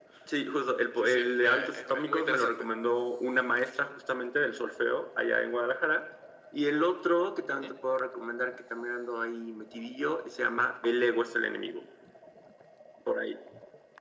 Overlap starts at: 1 s

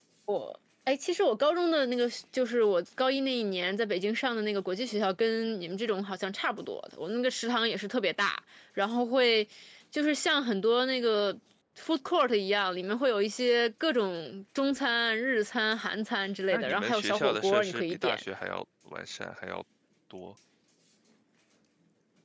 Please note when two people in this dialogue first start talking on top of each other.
17 s

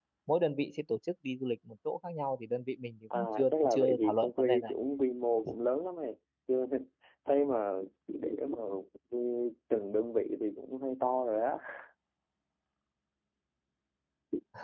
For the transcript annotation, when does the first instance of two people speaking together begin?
3 s

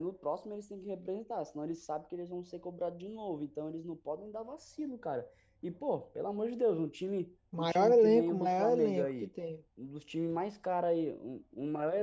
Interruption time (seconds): 8 s

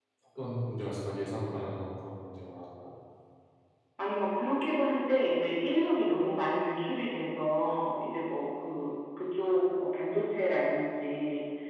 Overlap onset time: none

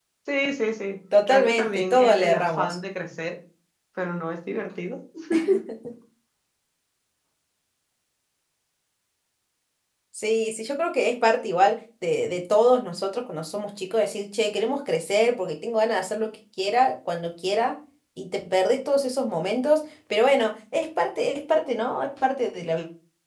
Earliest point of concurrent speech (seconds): 1 s

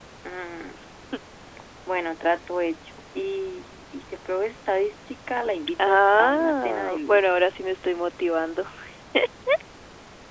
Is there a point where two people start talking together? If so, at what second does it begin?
6 s

